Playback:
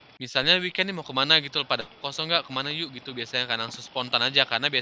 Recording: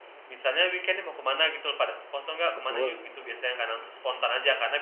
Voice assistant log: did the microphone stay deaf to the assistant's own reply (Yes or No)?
No